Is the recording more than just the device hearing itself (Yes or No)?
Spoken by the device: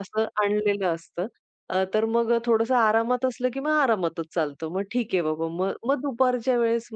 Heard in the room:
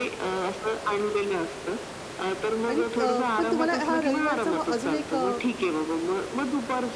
Yes